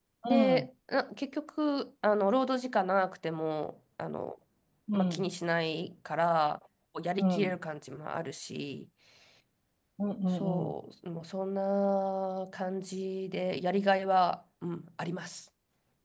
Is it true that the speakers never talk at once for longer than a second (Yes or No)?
Yes